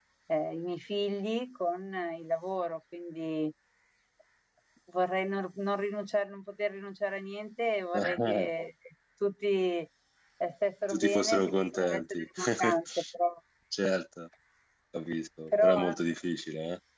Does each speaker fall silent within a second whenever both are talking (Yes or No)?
No